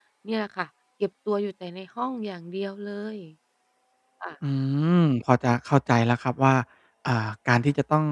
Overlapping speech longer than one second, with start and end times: none

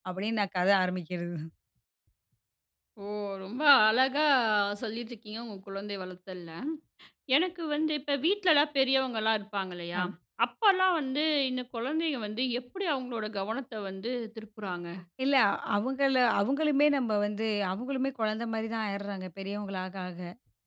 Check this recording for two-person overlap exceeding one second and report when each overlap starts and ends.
none

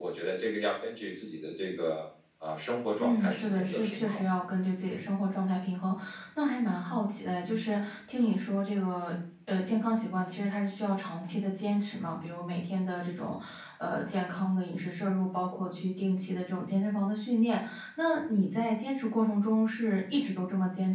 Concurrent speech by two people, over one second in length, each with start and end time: 3.0-4.2

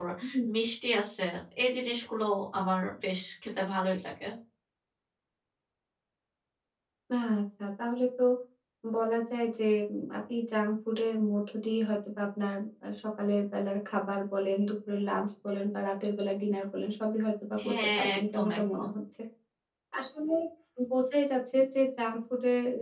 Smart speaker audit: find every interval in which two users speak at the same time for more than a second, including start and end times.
17.6-18.9

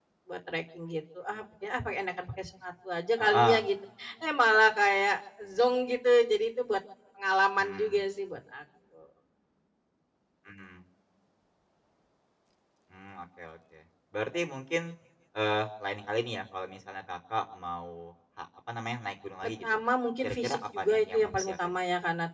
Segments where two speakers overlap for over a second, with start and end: 20.2-21.6

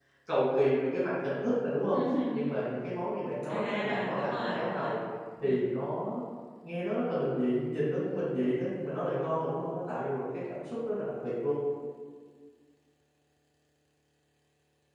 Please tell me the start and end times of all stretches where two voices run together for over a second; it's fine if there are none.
3.5-4.9

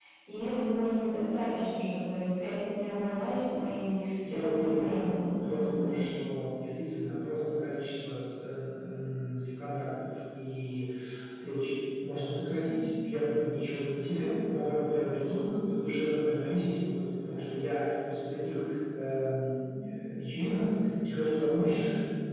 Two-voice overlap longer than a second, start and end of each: 4.3-6.0

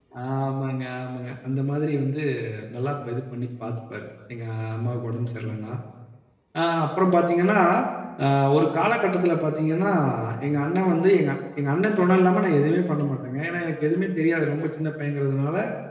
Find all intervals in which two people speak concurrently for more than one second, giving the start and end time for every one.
none

